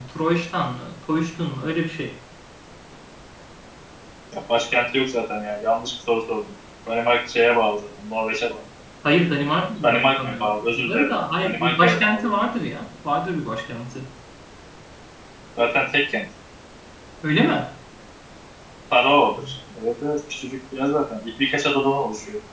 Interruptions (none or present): present